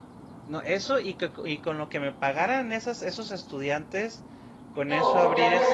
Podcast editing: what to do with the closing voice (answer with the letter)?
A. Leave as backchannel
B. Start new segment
B